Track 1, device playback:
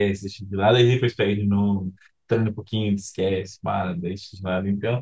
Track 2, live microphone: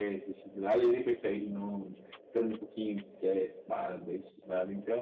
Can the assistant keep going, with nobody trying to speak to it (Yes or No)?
Yes